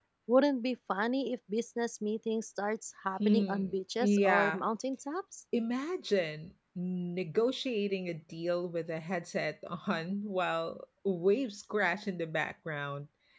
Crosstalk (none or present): present